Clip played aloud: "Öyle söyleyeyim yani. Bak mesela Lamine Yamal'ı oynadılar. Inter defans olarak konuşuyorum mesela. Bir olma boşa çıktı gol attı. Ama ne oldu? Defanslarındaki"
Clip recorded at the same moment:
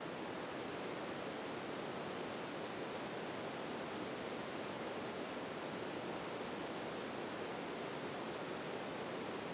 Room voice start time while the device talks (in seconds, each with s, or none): none